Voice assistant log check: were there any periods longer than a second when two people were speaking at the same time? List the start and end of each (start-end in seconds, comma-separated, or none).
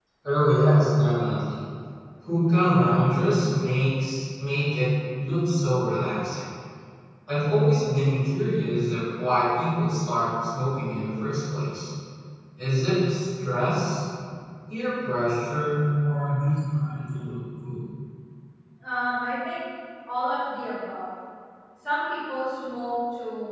none